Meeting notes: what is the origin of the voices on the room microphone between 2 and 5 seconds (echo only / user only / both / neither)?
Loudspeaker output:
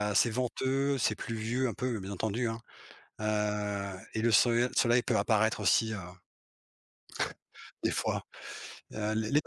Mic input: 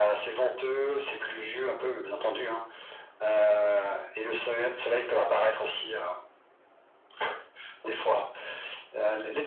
echo only